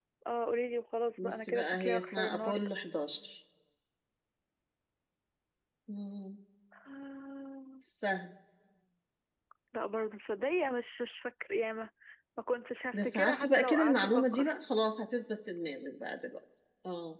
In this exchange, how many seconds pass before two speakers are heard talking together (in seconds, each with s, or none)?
1.2 s